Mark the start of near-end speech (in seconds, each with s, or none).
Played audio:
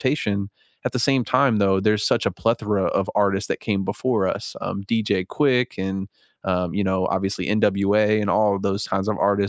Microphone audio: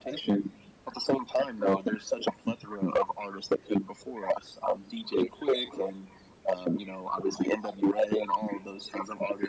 none